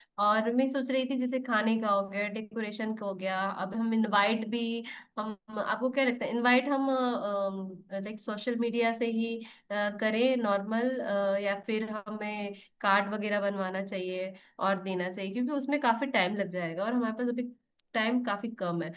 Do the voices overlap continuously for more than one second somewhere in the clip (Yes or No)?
No